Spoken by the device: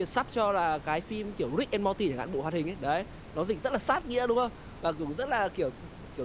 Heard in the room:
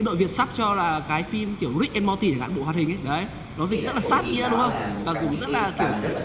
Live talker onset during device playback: 4 s

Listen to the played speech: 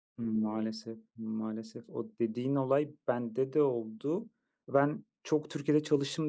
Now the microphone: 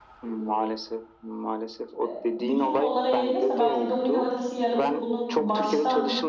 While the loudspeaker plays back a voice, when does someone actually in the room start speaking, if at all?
2 s

